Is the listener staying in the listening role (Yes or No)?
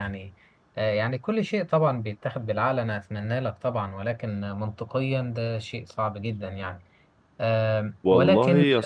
No